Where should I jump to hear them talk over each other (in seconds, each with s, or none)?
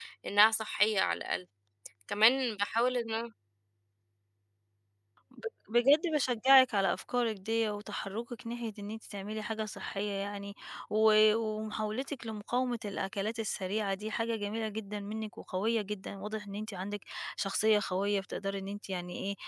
none